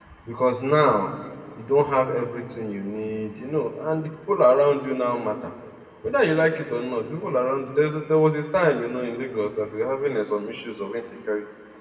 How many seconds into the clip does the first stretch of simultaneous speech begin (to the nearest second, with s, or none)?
none